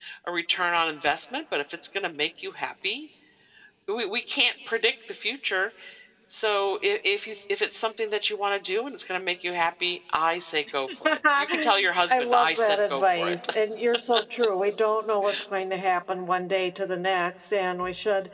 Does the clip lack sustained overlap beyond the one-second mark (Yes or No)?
No